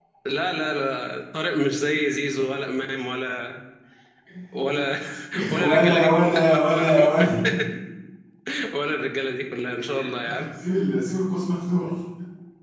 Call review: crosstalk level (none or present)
present